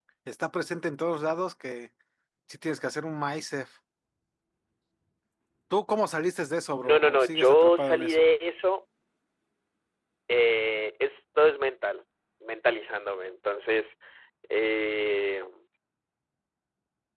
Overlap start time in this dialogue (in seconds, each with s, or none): 6.8 s